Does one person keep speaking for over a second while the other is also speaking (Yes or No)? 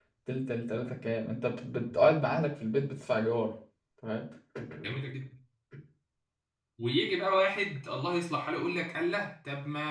No